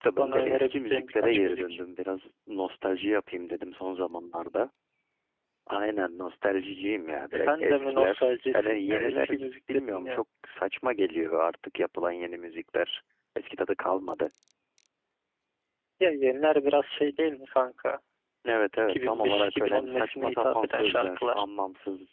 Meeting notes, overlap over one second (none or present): present